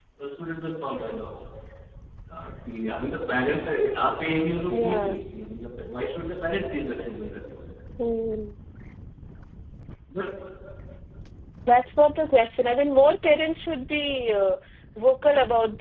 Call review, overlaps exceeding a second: none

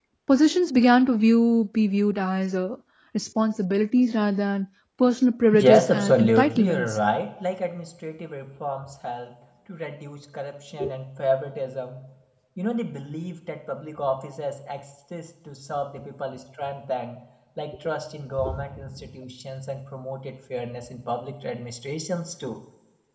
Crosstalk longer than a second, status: present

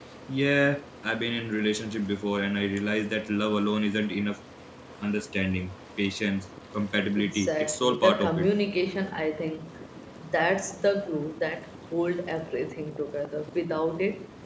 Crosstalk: present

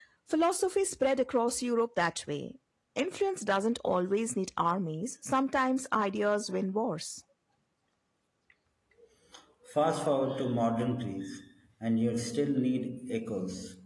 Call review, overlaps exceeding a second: none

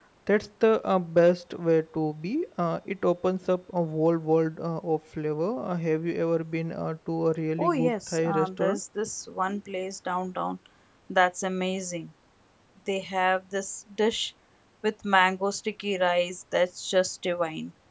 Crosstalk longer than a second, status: present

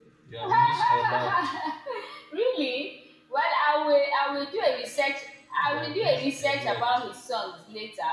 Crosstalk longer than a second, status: present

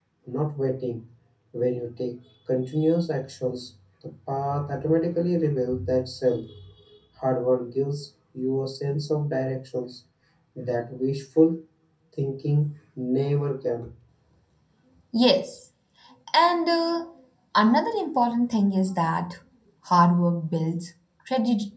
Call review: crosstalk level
none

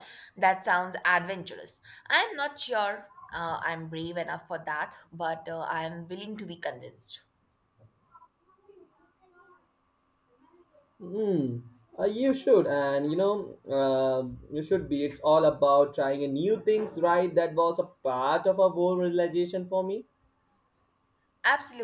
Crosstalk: none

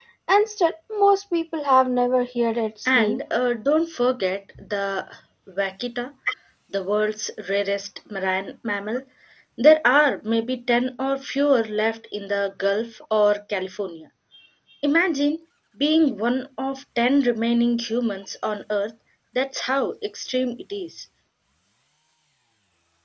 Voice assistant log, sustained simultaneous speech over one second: none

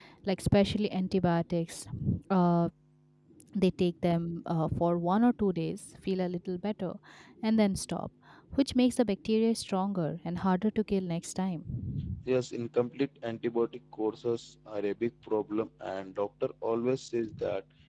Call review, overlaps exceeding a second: none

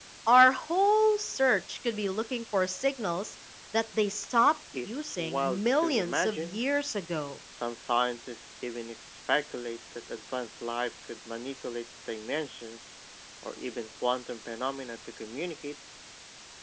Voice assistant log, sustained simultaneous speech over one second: present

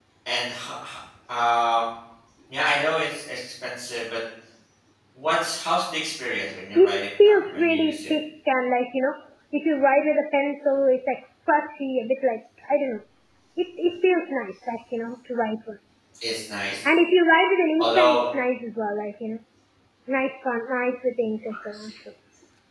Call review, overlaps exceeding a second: present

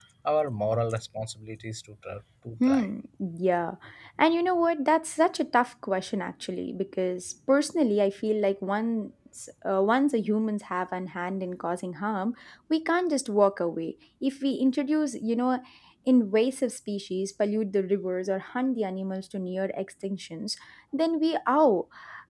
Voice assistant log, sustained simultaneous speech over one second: none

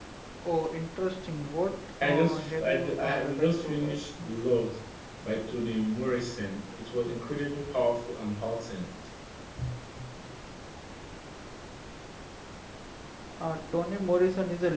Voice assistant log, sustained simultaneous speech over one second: present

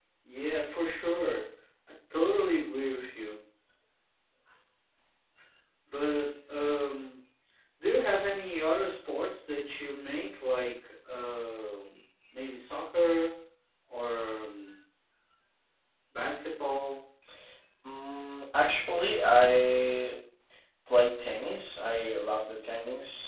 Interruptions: none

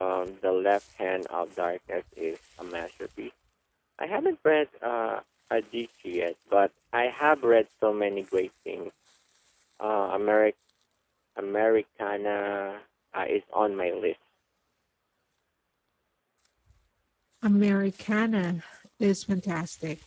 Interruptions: none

